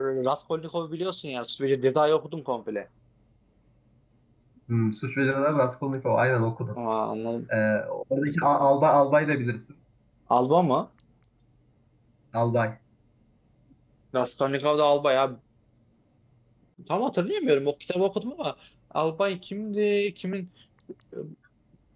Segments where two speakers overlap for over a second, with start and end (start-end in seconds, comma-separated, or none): none